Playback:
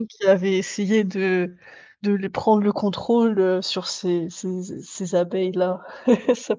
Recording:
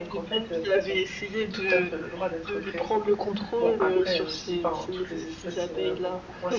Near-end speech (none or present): present